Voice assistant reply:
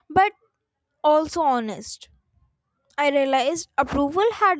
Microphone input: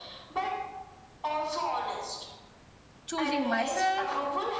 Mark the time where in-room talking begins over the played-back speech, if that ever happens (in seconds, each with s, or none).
3.0 s